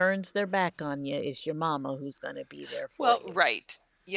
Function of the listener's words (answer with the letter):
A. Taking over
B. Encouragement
A